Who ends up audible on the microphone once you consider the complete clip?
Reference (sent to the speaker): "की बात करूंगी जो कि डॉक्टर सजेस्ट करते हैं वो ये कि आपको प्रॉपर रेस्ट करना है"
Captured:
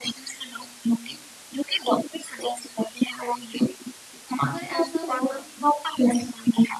both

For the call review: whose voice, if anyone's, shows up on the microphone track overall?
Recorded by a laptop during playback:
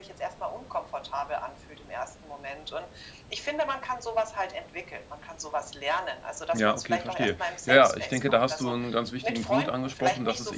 both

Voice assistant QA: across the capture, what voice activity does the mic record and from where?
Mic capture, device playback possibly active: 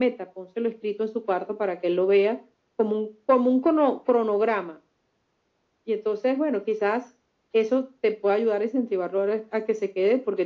echo only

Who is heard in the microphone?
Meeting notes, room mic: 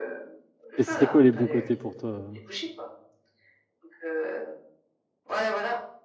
both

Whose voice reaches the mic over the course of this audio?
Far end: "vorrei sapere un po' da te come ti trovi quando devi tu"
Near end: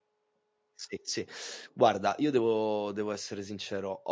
user only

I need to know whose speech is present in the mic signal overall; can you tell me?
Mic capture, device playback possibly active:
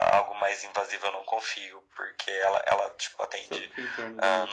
both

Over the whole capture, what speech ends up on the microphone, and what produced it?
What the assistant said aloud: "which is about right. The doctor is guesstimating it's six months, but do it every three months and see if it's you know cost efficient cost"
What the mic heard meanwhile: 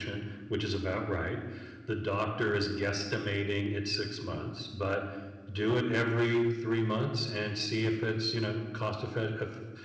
echo only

